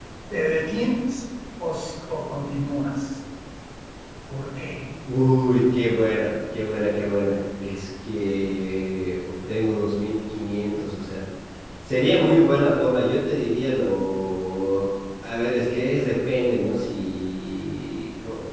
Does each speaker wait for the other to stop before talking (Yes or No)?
Yes